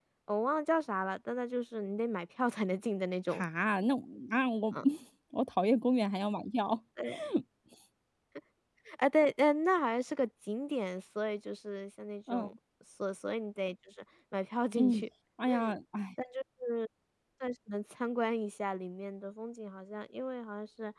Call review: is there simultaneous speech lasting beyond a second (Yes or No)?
No